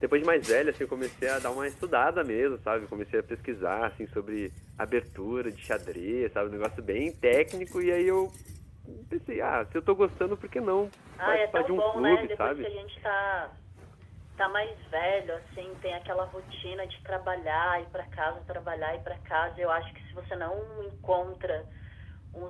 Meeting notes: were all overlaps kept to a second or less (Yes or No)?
No